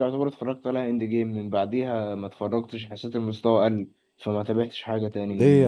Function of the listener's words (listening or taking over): taking over